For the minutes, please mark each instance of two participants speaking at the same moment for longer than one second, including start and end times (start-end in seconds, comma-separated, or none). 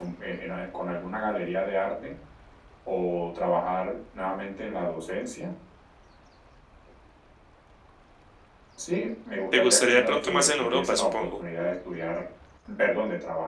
9.5-11.4